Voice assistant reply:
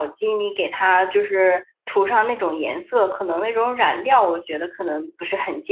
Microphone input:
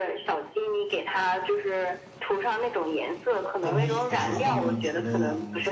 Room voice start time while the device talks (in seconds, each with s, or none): 3.6 s